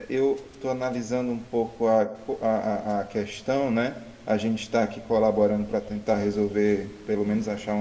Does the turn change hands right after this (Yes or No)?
No